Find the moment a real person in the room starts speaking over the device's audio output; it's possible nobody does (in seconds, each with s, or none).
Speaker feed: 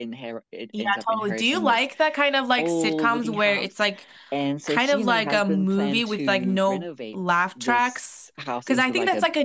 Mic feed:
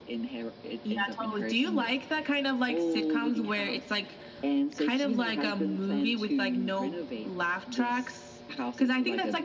none